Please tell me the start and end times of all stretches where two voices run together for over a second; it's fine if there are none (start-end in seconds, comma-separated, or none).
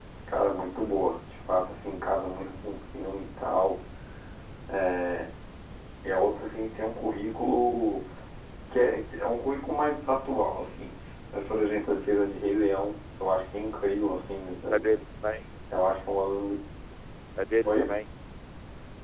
none